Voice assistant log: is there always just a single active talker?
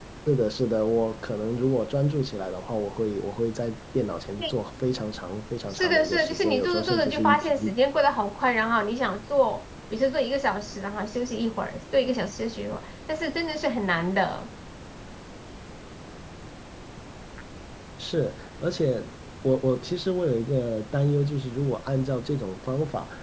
No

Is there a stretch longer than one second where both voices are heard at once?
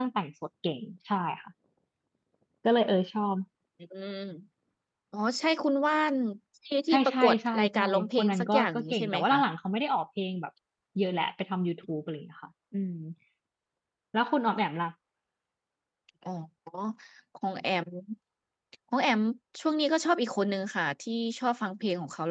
Yes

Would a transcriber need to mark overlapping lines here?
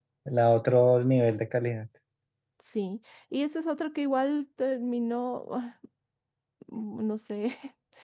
No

